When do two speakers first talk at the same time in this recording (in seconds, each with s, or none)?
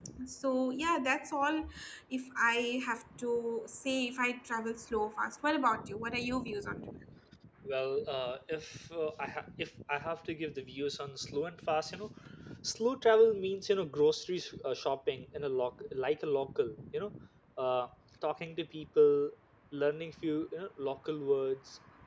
none